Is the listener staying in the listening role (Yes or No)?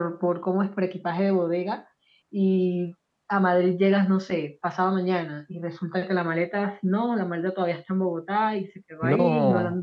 Yes